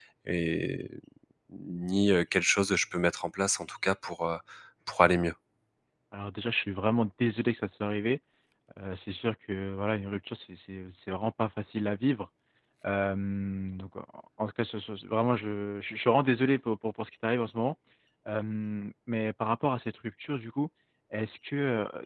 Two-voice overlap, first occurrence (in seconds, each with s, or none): none